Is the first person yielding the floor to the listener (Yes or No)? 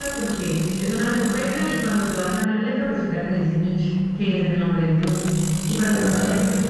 No